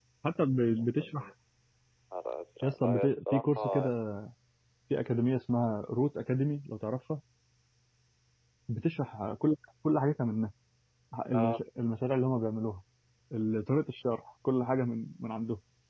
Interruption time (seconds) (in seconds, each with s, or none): 2.6 s